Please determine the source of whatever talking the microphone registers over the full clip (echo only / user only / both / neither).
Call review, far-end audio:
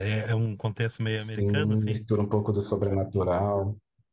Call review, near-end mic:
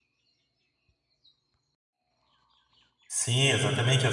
user only